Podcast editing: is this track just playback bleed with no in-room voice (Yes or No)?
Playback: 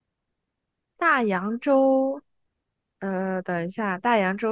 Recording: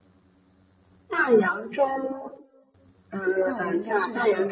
No